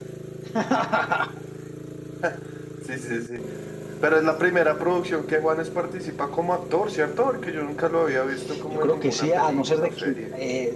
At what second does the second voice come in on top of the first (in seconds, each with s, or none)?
8.5 s